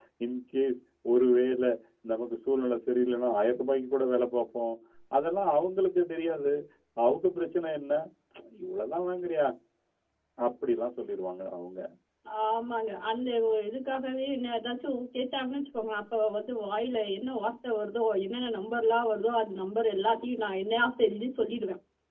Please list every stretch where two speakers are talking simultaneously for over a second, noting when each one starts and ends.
none

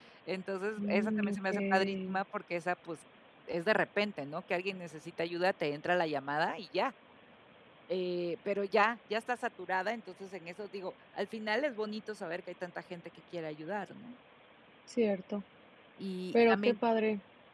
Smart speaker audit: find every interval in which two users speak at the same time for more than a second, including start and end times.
0.8-2.2

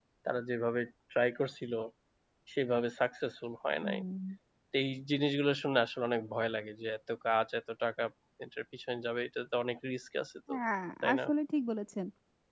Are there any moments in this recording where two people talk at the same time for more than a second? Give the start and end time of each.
none

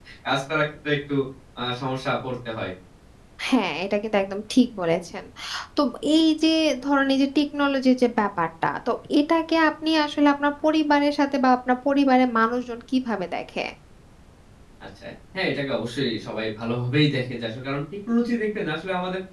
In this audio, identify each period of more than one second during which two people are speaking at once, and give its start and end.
none

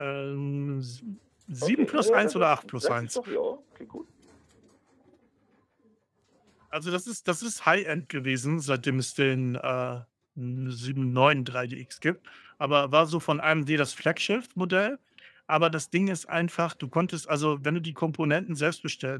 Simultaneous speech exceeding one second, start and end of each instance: 1.6-3.2

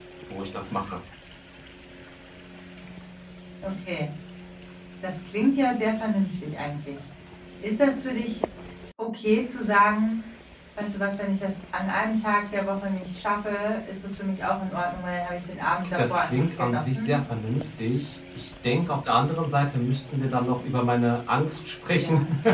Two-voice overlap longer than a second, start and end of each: 16.0-17.2

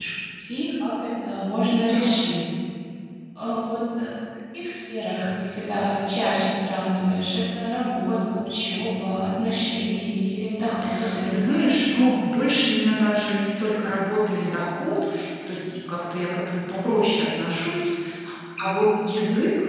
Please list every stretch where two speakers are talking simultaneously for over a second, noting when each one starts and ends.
none

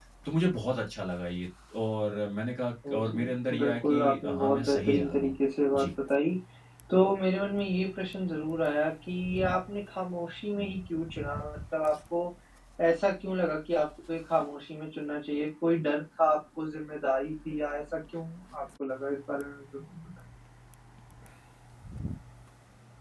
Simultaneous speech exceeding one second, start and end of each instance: 3.6-5.3

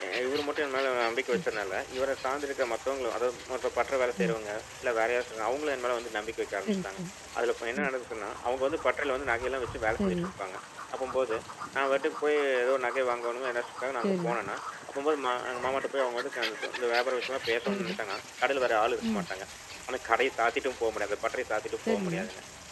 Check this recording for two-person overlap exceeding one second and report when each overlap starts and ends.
none

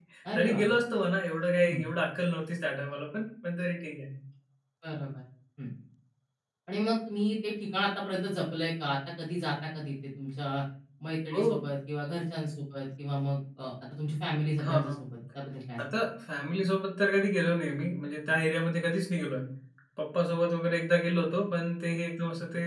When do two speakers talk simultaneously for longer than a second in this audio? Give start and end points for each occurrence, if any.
none

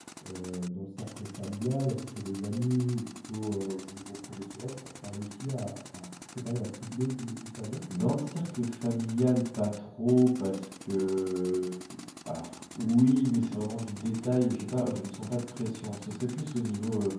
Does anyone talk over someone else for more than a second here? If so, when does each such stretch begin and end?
none

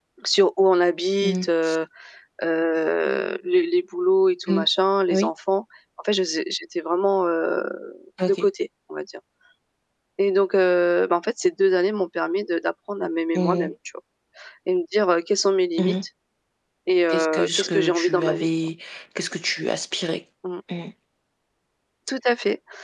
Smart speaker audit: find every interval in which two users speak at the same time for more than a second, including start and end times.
17.1-18.5

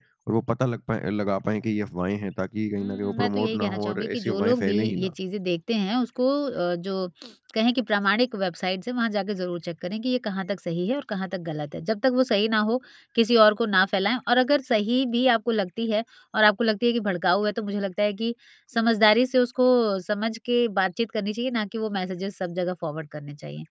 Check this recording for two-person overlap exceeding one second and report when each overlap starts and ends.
2.8-5.1

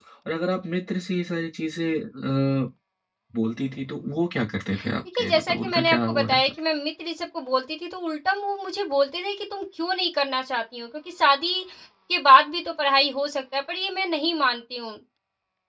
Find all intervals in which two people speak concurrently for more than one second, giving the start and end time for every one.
5.2-6.5

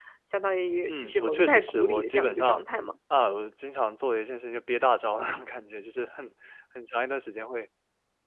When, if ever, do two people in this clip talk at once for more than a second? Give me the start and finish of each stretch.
0.9-2.6

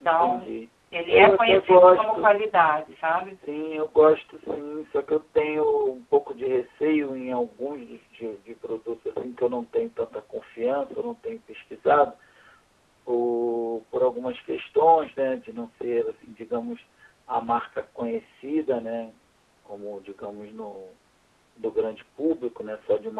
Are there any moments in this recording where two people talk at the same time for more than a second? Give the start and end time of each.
1.1-2.3

